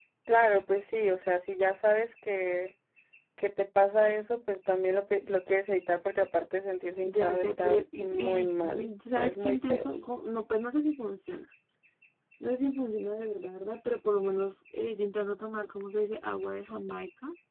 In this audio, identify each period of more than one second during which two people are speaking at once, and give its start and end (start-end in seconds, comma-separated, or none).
7.0-9.9